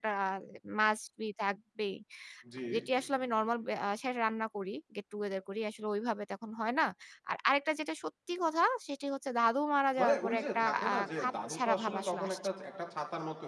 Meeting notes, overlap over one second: present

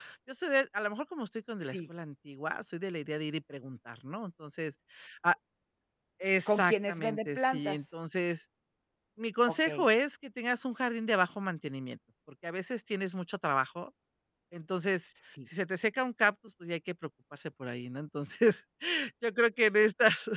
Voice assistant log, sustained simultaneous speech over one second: present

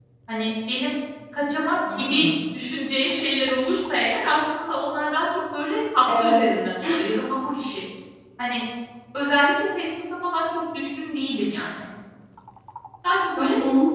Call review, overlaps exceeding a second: none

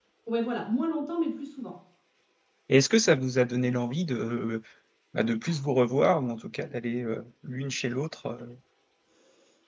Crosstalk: none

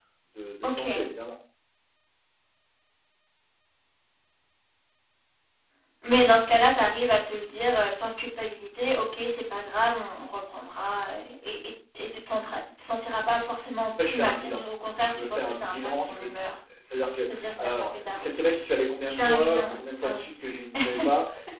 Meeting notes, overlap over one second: present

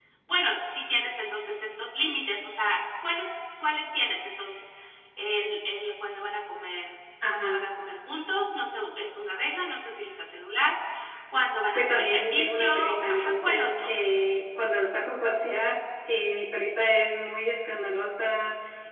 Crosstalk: present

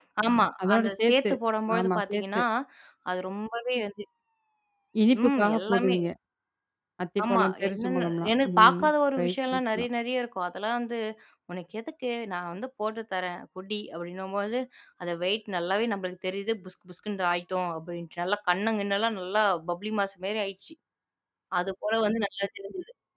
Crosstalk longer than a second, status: present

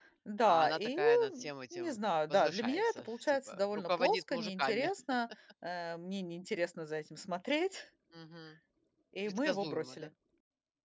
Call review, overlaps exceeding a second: present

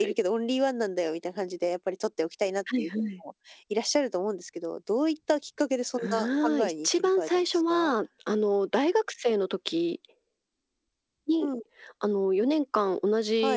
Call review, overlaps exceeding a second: present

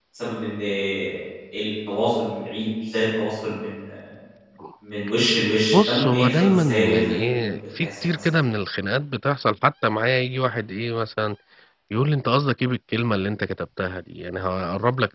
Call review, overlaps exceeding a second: present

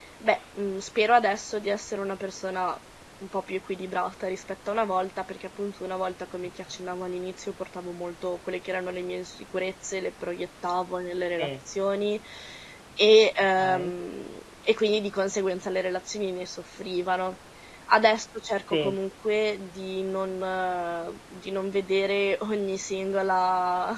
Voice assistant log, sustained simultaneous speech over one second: none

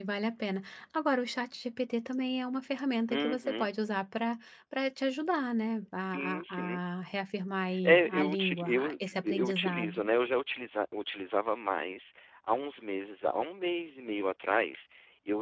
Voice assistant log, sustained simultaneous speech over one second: present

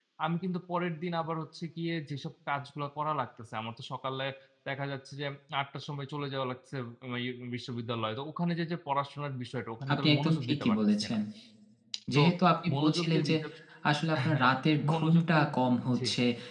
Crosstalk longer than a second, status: present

